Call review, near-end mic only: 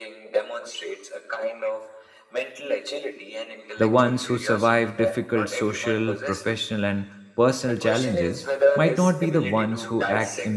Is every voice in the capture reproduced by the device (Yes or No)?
No